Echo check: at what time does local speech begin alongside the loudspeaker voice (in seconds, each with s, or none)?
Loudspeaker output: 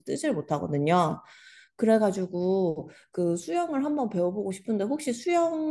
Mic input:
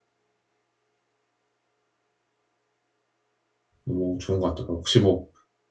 3.8 s